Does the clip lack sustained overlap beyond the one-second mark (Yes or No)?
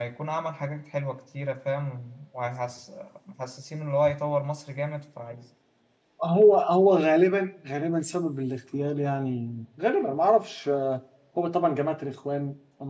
Yes